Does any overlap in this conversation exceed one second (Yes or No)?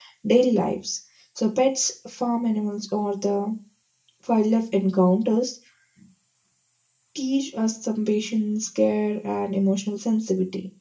No